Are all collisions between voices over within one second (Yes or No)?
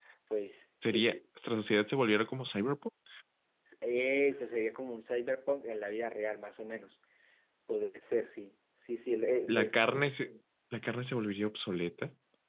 Yes